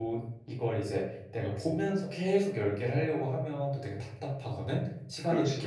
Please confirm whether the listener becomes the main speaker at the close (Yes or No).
No